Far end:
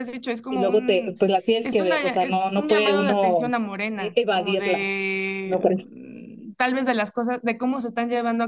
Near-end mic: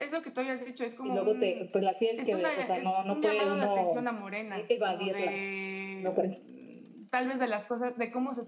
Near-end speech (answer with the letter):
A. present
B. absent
B